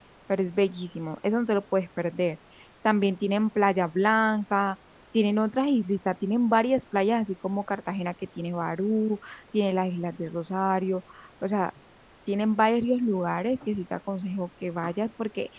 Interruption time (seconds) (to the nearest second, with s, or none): none